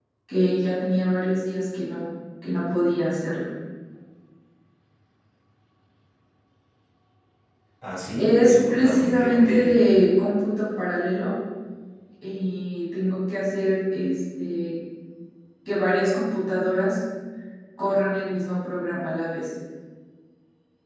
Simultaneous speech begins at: 8 s

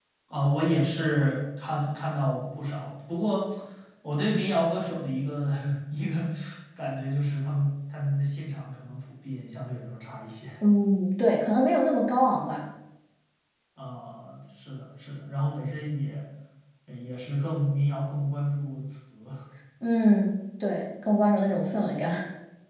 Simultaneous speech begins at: none

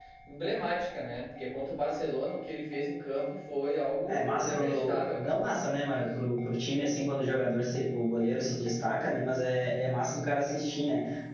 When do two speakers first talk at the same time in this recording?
4 s

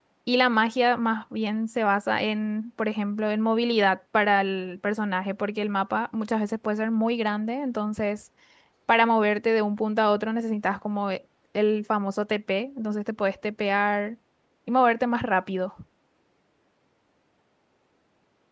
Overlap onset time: none

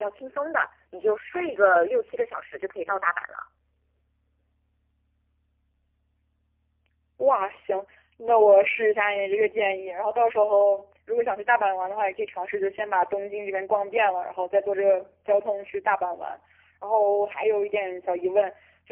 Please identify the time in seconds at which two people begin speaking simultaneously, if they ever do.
none

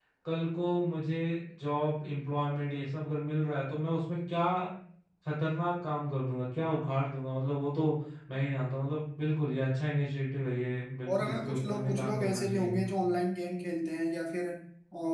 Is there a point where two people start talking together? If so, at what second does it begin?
11 s

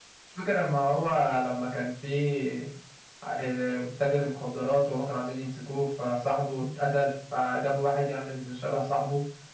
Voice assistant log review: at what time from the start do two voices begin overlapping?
none

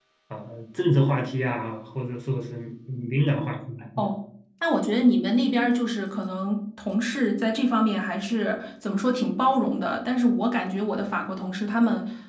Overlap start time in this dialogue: none

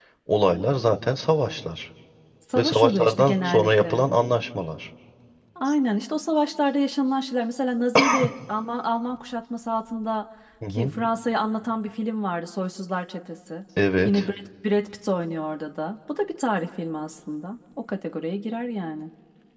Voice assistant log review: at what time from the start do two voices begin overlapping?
3 s

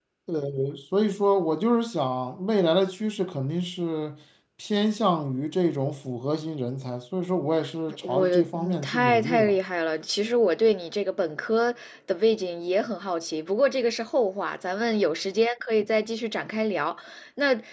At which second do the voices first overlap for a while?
8 s

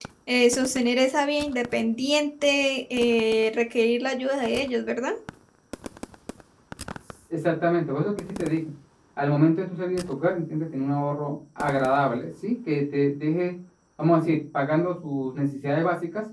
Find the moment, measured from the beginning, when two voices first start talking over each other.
none

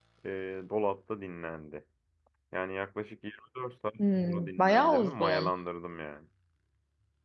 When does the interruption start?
4 s

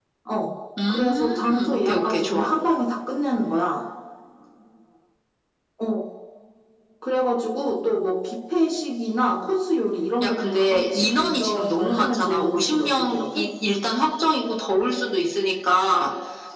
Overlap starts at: 1 s

